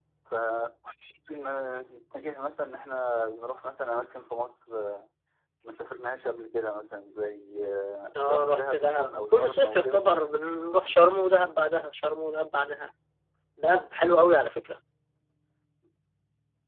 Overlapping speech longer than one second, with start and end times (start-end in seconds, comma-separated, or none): 8.2-10.1